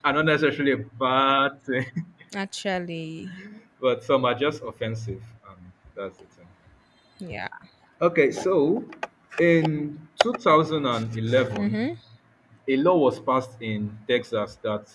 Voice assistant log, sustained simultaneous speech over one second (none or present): none